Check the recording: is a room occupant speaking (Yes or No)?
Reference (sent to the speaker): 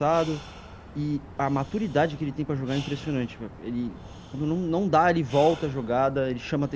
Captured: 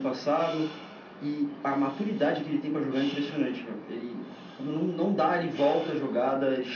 No